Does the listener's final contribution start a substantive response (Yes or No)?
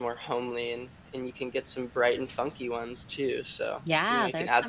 Yes